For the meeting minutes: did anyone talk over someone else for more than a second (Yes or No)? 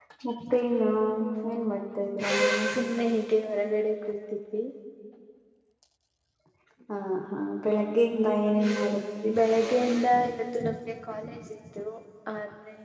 No